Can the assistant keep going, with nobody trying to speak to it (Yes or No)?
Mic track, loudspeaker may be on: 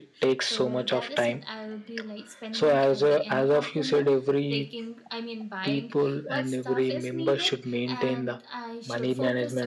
No